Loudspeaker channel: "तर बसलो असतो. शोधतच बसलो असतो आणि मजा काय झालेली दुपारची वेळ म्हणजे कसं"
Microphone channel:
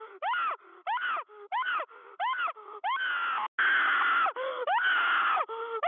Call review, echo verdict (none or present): none